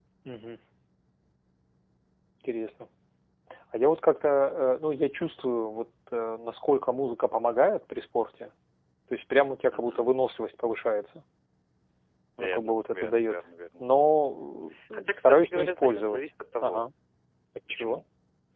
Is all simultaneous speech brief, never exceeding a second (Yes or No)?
No